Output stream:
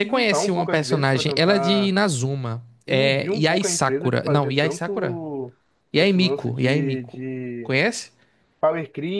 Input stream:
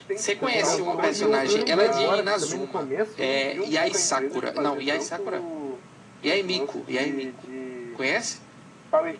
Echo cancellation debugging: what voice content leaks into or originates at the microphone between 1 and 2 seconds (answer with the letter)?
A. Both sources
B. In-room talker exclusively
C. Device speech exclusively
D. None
A